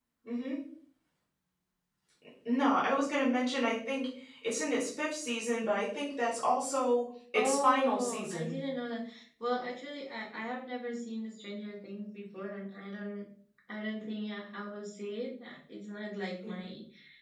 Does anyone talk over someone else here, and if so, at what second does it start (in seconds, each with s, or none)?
7.3 s